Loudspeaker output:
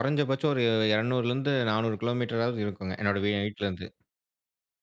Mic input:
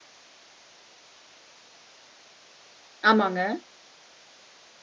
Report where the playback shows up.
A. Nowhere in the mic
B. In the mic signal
A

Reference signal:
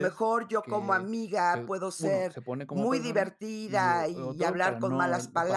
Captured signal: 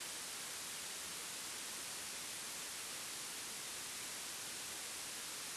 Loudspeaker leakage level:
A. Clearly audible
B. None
B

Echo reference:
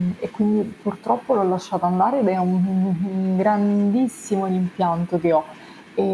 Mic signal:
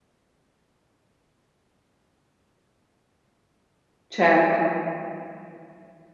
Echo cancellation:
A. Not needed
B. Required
A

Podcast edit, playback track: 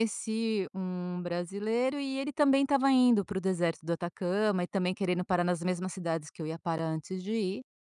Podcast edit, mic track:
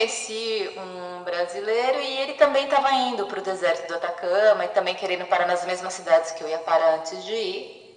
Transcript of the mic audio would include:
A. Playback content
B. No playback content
A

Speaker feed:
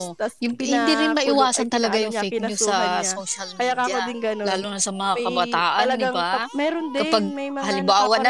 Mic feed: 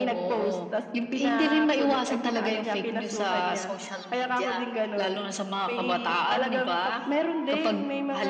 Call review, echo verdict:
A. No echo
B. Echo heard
B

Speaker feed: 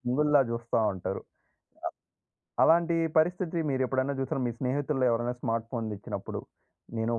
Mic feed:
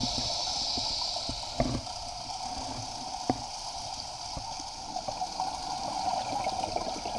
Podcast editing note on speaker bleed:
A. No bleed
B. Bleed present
A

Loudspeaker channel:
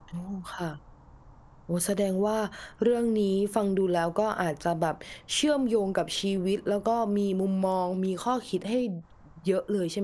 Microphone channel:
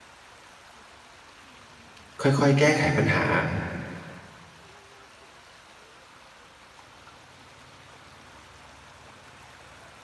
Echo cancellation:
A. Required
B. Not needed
B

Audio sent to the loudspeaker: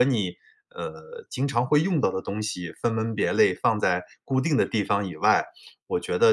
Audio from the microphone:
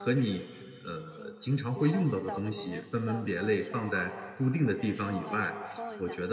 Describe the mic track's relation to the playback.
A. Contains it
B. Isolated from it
A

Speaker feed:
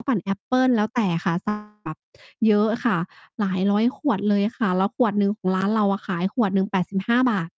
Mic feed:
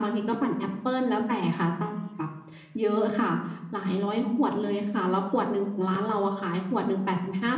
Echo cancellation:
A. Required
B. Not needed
A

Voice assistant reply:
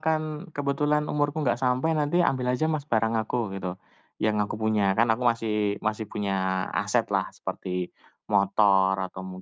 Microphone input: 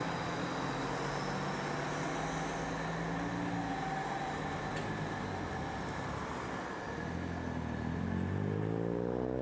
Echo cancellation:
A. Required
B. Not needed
B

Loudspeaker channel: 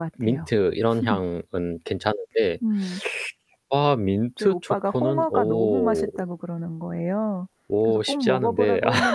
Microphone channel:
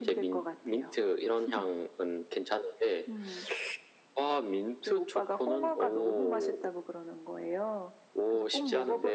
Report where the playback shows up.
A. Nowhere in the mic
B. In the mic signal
B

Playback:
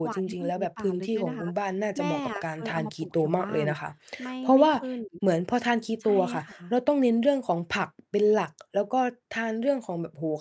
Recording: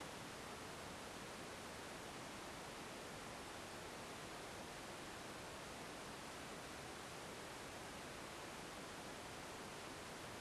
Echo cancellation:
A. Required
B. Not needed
B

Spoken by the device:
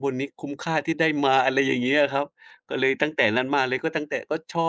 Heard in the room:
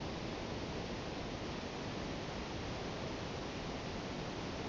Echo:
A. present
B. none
B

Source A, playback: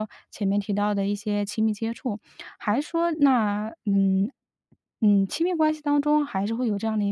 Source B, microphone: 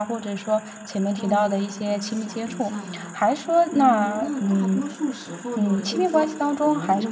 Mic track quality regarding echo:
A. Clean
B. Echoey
B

